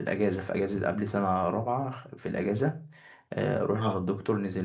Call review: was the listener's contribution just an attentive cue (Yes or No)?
Yes